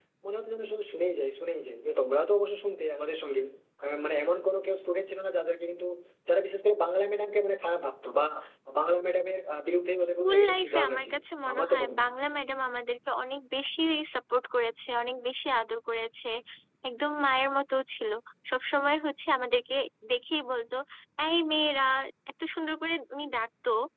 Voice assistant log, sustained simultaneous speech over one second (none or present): present